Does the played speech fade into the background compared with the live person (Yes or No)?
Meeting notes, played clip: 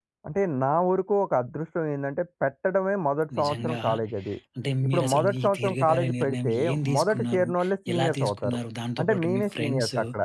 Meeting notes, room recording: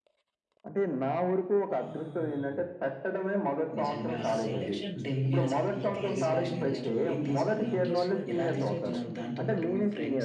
No